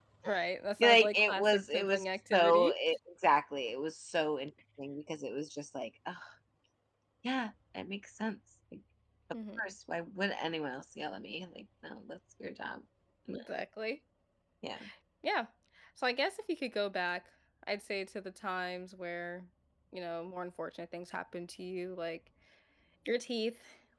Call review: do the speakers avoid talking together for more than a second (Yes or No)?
No